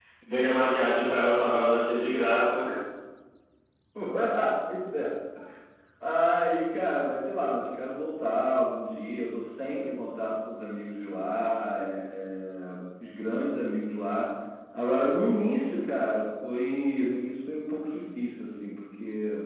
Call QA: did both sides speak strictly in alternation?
Yes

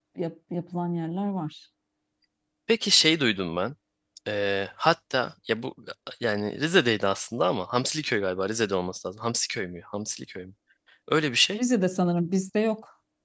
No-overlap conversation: Yes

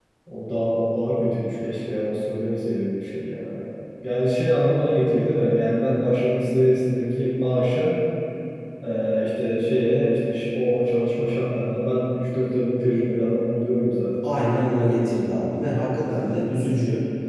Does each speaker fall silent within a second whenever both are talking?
Yes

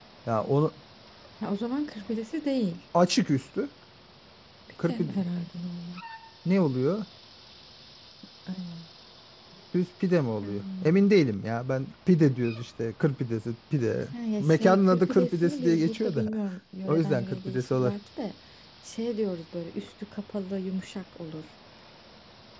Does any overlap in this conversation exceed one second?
Yes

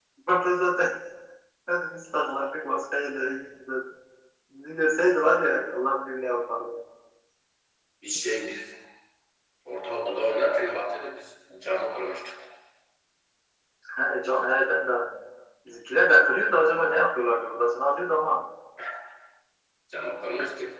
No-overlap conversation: Yes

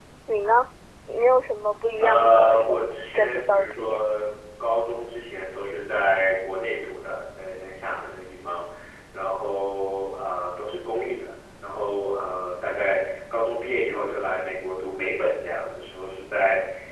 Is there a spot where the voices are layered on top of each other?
Yes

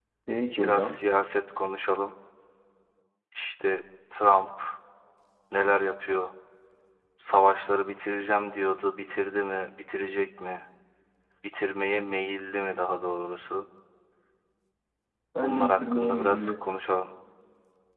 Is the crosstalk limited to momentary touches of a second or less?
No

